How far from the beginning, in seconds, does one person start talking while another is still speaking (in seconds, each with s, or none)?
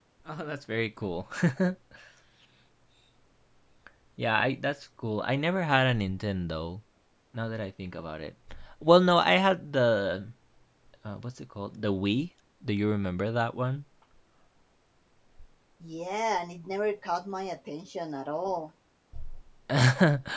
none